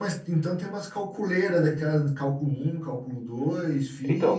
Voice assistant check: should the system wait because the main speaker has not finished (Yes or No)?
No